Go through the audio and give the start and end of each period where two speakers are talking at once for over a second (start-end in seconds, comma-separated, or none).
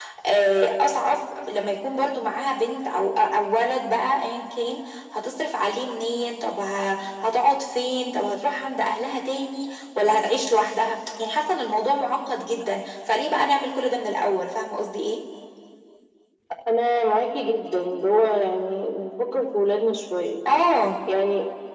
none